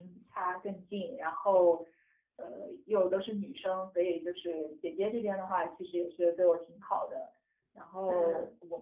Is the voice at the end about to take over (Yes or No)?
No